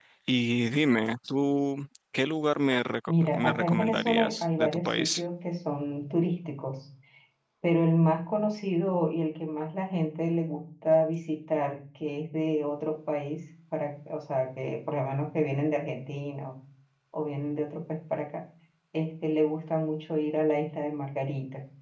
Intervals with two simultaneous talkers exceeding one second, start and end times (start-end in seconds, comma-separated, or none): 3.1-5.2